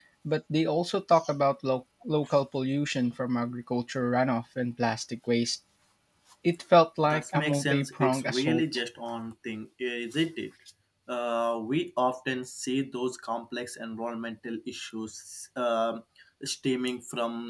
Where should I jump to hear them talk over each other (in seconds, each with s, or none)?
7.0 s